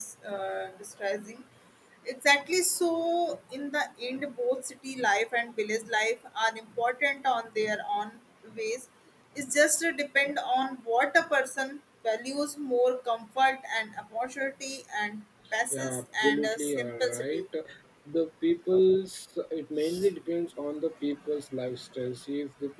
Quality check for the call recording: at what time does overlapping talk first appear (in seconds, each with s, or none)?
15.7 s